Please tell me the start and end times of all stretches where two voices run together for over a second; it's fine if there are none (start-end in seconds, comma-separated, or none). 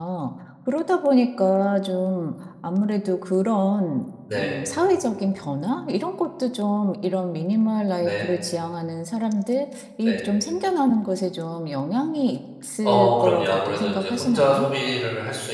12.8-14.7